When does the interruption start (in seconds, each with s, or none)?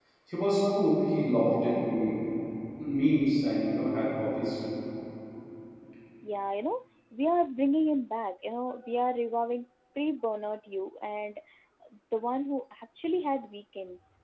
none